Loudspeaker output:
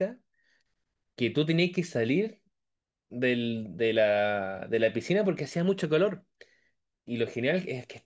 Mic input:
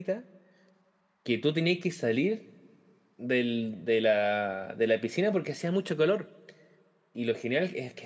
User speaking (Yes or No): No